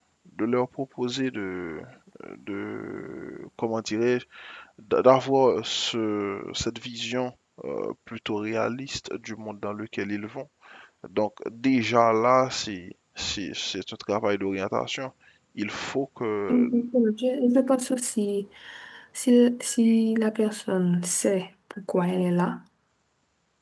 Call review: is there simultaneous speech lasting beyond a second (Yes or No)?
No